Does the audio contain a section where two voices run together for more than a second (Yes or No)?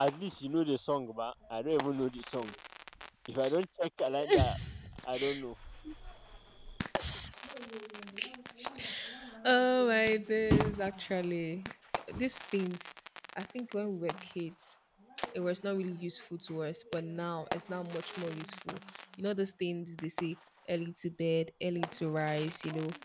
No